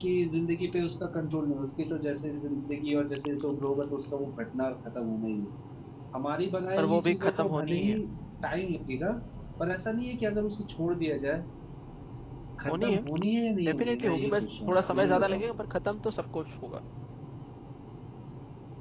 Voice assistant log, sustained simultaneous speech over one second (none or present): present